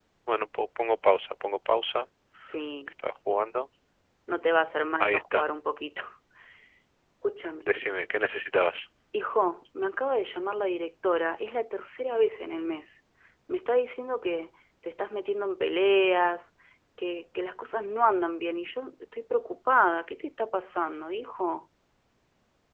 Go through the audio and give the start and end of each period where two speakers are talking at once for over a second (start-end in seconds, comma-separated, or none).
none